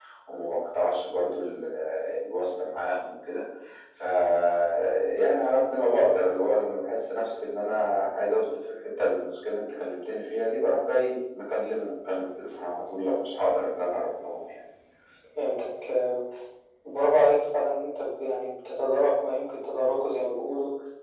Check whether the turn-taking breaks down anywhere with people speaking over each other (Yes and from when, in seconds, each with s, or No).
No